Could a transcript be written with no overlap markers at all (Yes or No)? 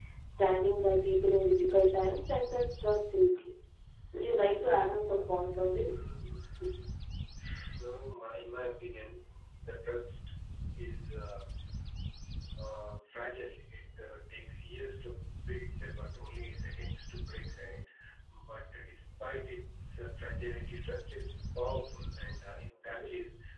No